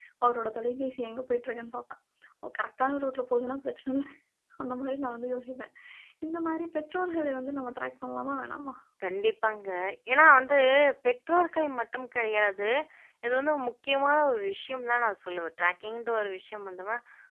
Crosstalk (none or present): none